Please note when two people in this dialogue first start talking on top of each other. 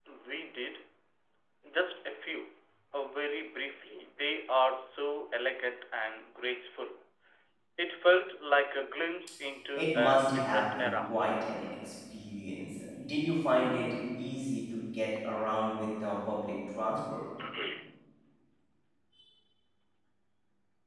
9.7 s

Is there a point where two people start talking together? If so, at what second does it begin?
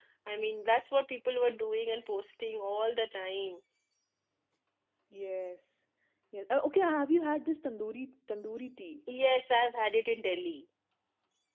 none

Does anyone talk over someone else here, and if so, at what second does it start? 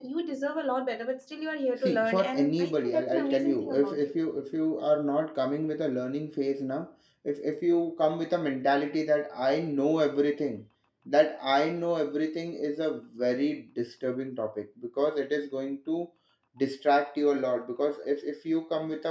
1.8 s

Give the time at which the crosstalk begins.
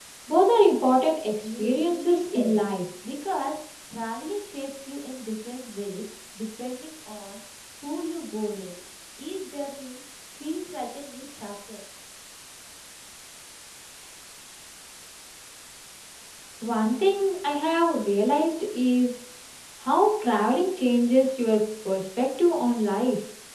1.4 s

